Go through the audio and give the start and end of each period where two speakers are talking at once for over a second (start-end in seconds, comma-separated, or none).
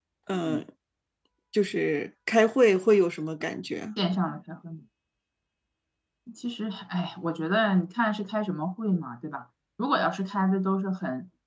none